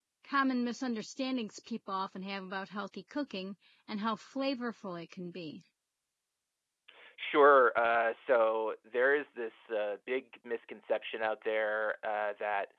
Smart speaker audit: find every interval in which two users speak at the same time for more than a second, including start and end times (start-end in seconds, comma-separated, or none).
none